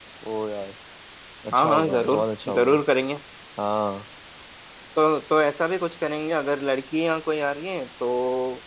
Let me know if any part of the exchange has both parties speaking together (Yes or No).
Yes